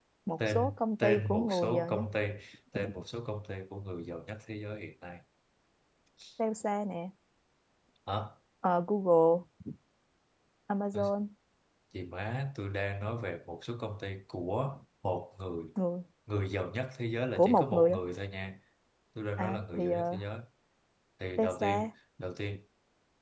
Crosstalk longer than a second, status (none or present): present